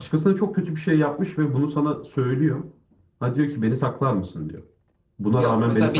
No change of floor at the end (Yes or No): No